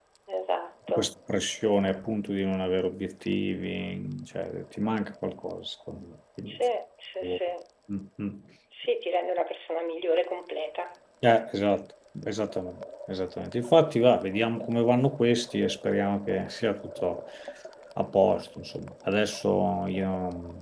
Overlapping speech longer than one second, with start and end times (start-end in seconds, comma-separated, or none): none